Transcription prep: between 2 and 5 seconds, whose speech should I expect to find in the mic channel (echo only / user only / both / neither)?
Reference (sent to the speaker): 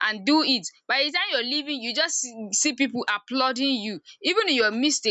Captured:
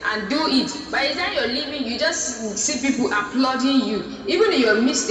echo only